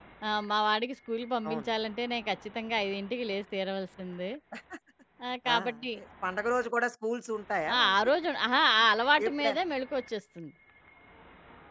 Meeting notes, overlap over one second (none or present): none